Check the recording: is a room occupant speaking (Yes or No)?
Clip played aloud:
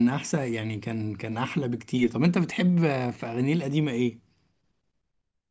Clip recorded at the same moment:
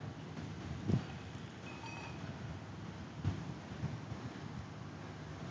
No